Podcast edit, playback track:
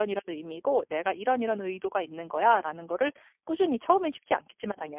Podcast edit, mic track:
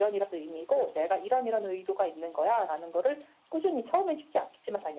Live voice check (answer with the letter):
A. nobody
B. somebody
A